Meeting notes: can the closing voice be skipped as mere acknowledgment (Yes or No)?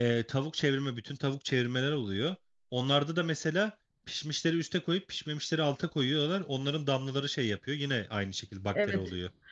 No